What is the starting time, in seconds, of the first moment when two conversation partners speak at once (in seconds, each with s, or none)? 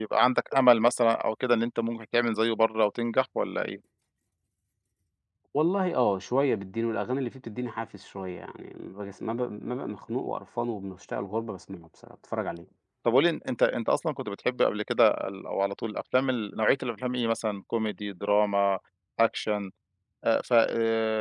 none